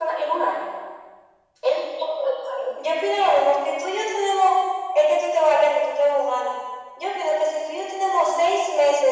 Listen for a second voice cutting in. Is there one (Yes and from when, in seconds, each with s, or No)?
No